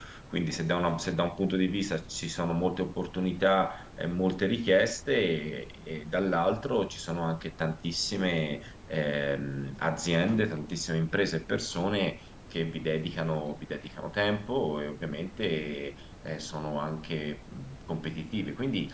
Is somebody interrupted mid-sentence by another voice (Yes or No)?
No